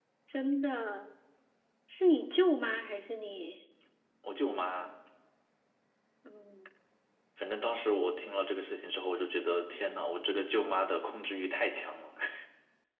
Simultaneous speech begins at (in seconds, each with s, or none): none